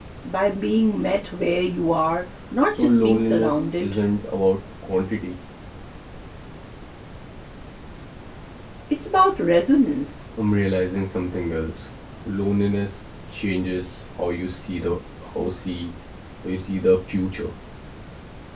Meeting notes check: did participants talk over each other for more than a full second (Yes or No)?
Yes